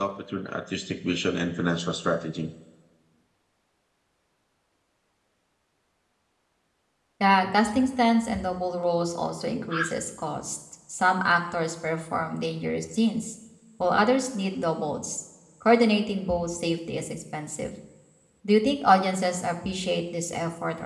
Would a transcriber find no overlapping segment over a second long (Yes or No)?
Yes